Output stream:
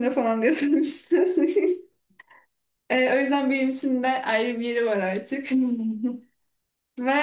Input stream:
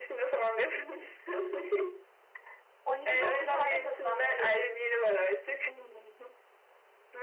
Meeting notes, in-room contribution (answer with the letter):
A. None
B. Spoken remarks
B